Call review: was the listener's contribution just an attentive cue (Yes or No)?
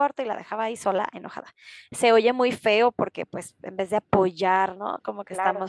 Yes